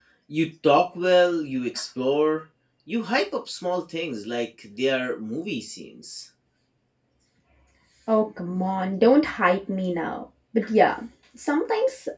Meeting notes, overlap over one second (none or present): none